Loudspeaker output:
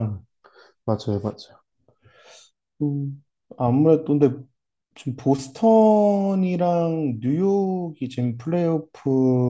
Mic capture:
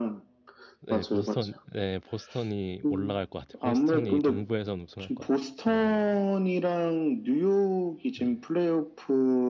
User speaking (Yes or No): Yes